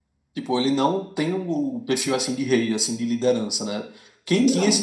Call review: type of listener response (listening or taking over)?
listening